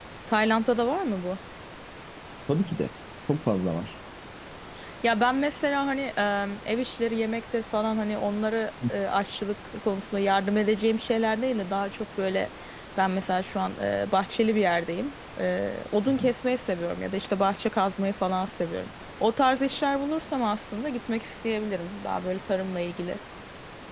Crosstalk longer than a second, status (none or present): none